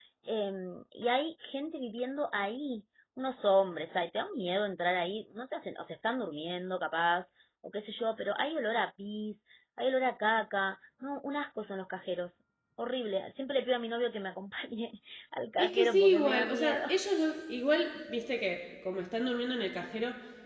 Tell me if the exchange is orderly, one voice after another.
No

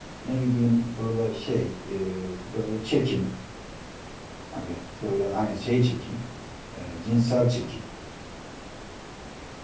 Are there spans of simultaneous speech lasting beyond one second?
No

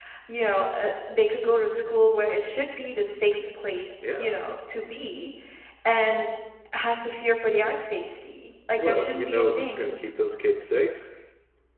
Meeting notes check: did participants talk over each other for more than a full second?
Yes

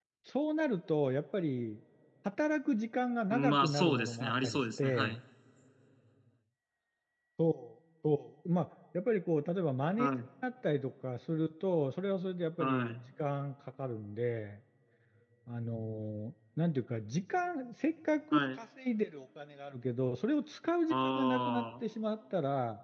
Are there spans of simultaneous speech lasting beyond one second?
Yes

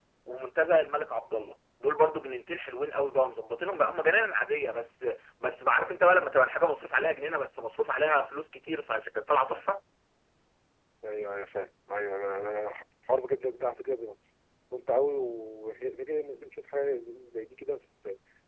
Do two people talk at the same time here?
No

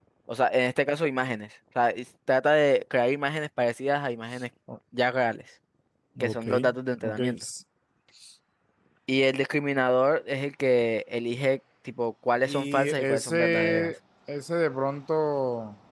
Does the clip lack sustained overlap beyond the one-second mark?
No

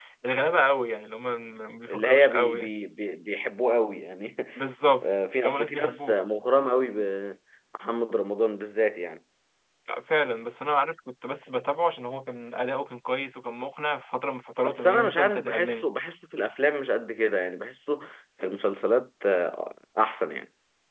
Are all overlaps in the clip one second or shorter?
No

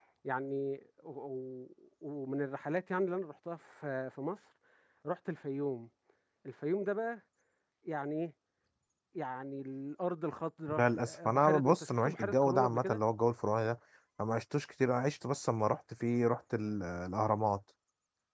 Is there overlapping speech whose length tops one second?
Yes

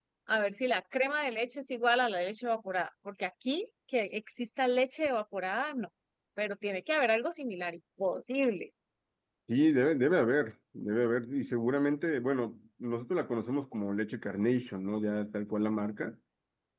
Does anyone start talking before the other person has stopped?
No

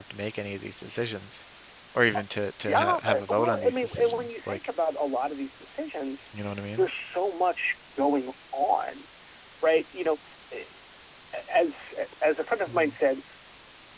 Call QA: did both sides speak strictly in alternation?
No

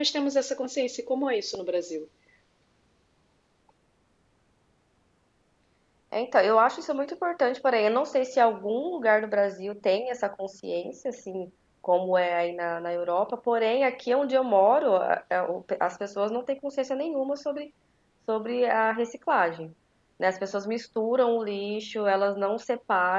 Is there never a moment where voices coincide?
Yes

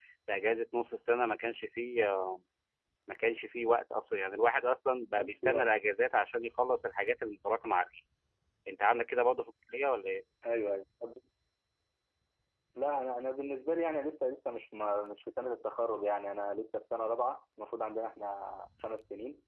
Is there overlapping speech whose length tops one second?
No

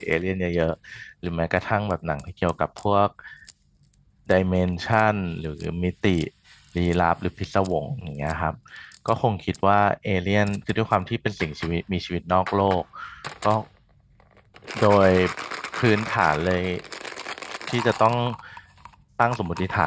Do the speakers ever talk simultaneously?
No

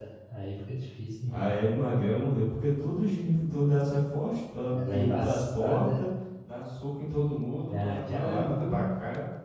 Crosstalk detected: Yes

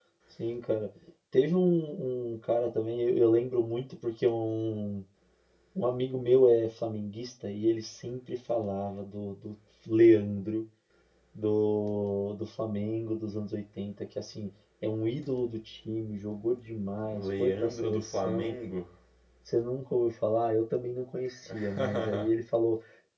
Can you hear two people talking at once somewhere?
Yes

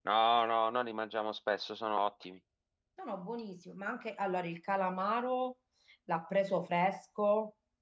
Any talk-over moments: No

